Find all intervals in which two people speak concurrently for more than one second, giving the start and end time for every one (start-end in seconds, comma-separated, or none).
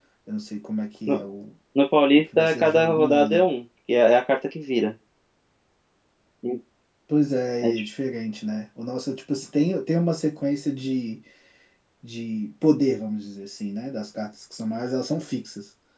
2.2-3.4